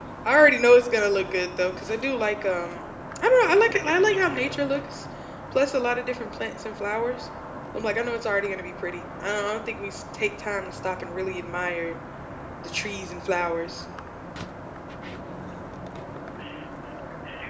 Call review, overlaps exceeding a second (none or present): present